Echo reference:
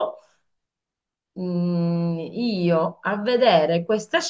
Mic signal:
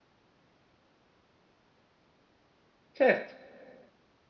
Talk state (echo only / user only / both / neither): user only